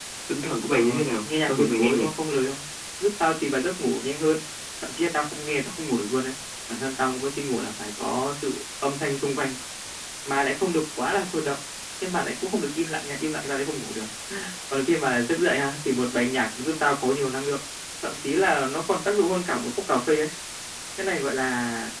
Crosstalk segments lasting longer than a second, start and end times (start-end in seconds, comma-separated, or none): 0.7-2.1